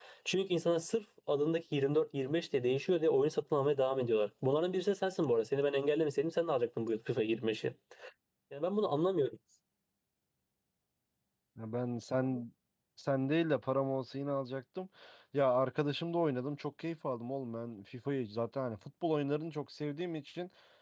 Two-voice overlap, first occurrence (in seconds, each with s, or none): none